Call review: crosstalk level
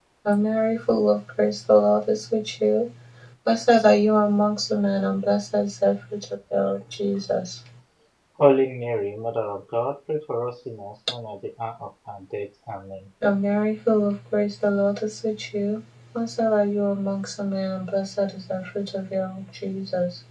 none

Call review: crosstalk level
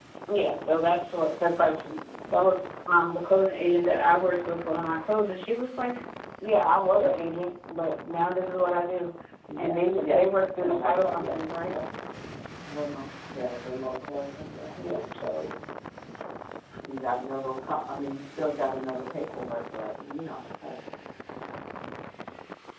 present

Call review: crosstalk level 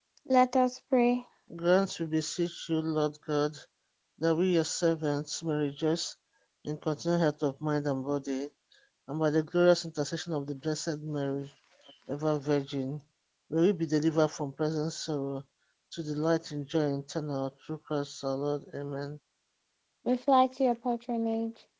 none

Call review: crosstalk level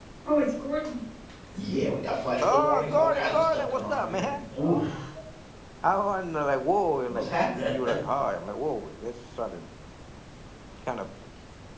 present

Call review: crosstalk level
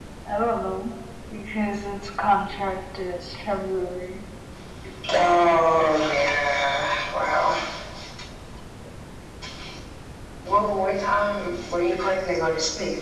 none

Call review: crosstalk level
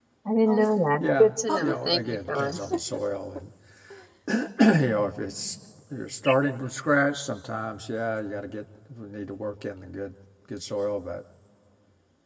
present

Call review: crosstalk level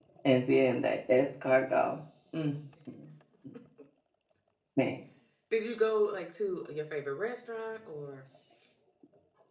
none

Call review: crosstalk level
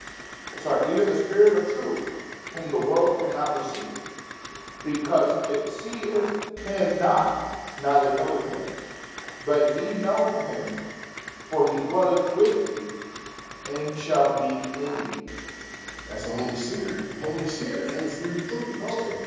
none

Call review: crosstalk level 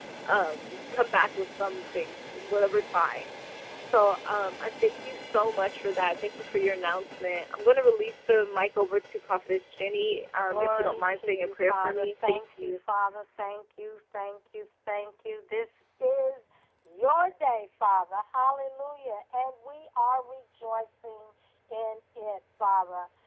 present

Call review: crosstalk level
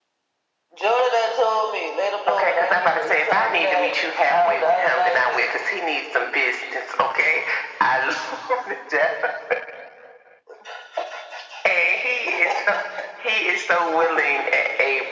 present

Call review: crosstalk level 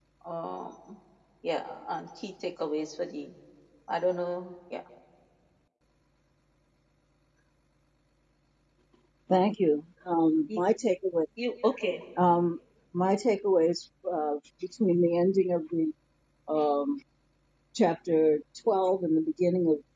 none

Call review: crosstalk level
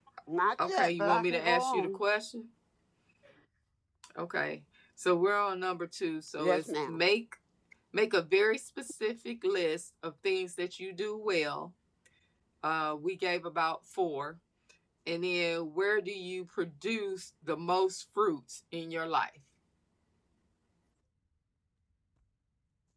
present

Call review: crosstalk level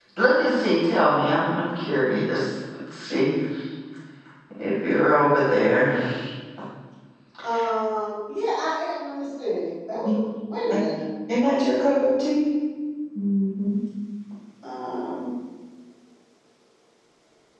none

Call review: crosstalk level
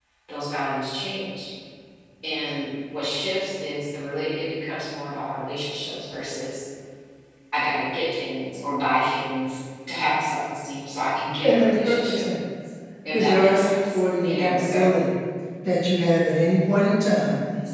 present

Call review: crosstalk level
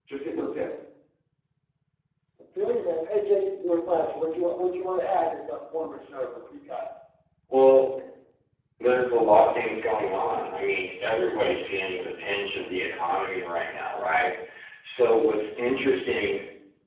none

